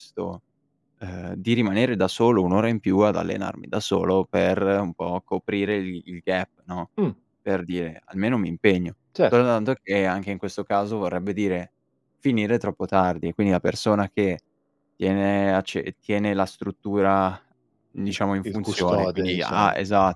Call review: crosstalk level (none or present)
present